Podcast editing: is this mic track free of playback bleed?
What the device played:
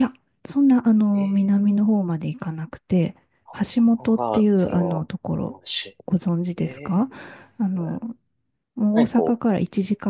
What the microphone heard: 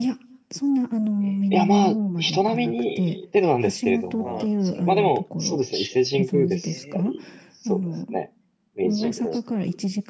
No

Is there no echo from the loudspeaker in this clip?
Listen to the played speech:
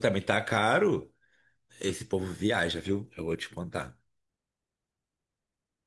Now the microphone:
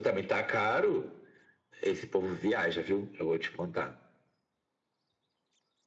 No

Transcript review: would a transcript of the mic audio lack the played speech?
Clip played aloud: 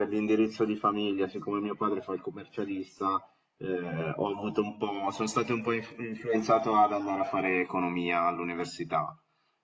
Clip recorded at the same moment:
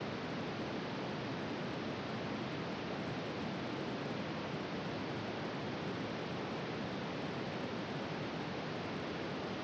Yes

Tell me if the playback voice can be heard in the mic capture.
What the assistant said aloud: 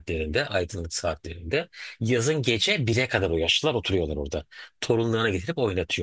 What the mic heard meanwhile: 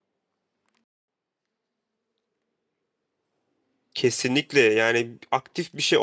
No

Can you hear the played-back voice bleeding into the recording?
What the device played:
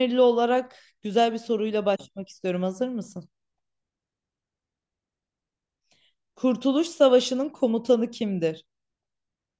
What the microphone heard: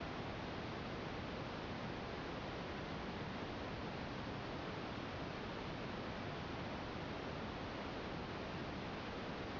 No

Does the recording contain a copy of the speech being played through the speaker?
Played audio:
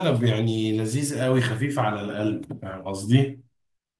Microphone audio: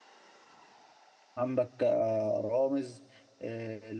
No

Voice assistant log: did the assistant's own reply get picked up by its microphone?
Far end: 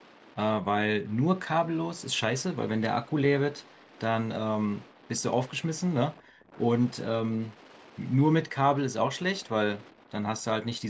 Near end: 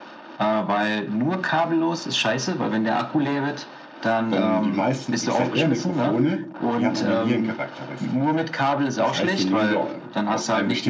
Yes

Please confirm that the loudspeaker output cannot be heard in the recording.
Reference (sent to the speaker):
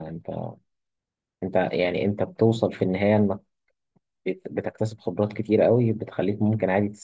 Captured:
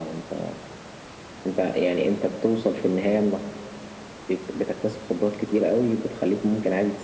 No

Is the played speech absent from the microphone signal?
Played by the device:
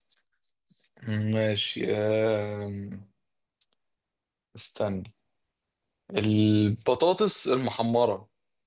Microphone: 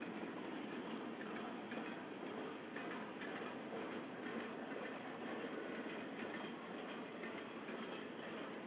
Yes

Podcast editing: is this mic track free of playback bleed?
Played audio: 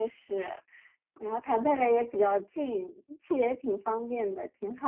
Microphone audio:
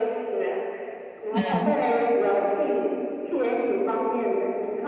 No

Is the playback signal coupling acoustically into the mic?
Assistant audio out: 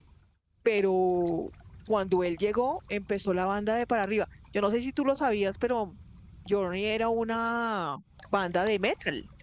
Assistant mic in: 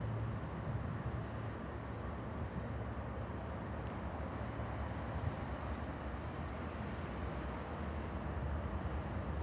No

